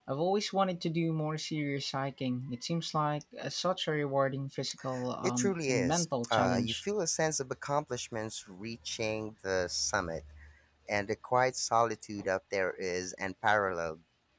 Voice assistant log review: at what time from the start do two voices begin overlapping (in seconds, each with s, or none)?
5.2 s